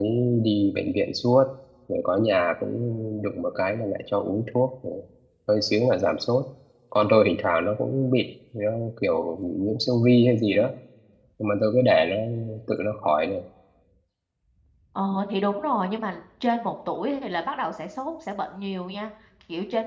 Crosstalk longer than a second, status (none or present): none